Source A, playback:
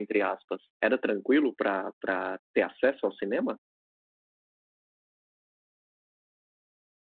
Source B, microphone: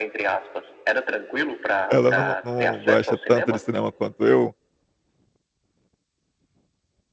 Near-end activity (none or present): present